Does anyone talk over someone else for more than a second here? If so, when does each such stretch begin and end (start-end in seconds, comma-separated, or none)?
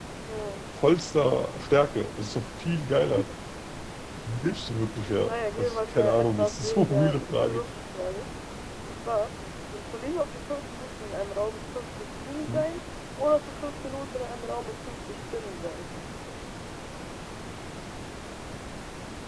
5.3-7.6